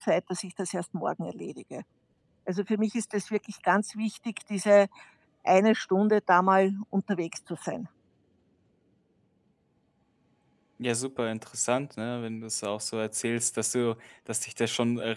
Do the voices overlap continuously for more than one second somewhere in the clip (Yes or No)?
No